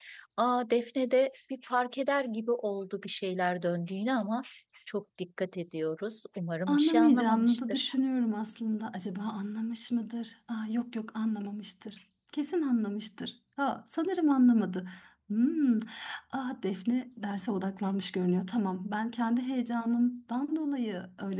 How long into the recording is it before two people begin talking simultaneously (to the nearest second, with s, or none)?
7 s